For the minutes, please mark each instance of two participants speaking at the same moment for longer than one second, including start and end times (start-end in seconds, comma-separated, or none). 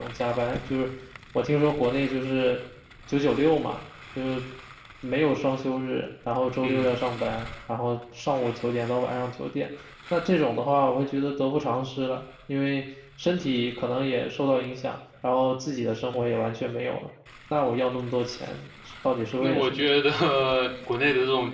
none